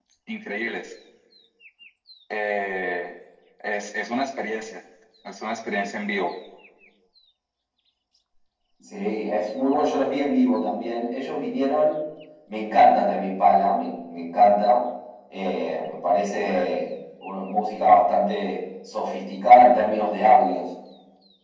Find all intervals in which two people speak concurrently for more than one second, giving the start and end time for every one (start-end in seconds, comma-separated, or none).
none